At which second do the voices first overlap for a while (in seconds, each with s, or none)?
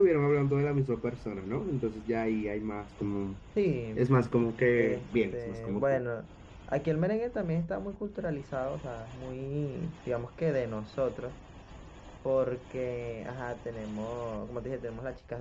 4.8 s